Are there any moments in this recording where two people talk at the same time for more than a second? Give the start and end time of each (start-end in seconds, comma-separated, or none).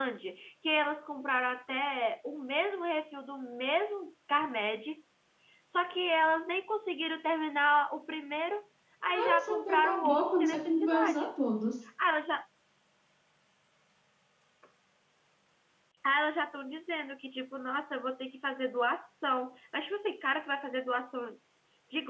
9.1-11.3